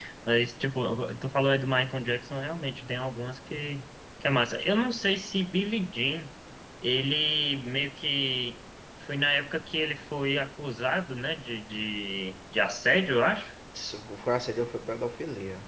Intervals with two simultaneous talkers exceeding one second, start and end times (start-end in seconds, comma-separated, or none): none